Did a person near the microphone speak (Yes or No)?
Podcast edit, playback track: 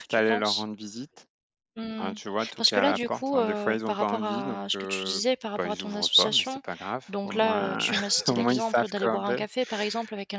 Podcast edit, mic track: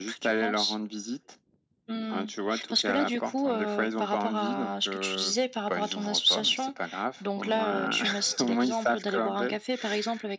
No